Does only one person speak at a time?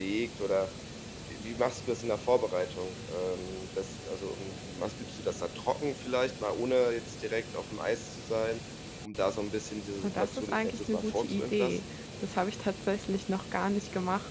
No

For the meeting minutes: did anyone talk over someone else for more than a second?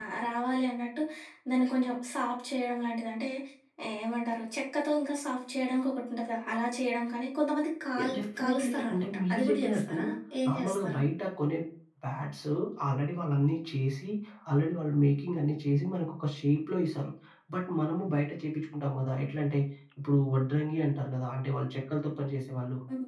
Yes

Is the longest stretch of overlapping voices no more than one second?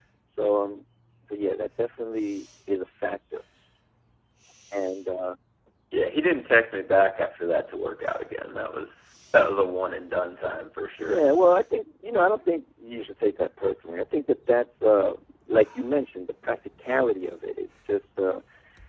Yes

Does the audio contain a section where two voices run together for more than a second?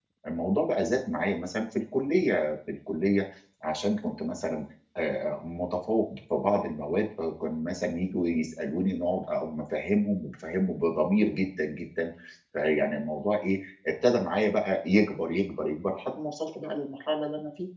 No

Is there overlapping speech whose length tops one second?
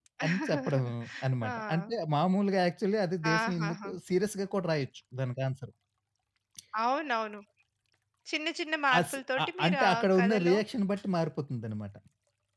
Yes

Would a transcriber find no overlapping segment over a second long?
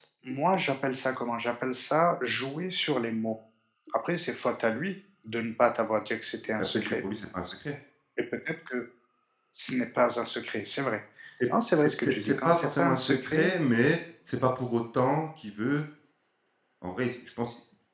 No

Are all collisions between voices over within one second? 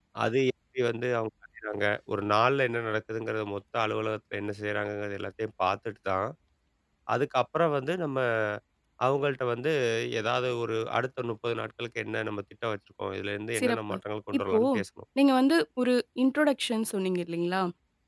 Yes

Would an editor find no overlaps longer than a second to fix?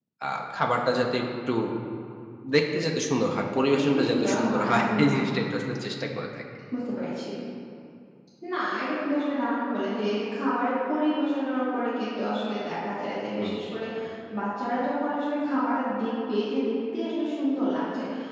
No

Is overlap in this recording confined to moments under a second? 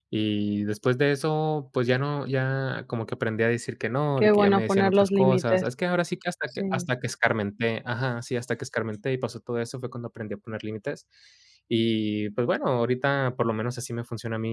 No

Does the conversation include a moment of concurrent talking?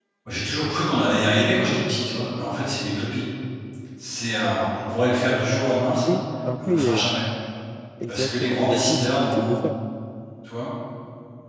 Yes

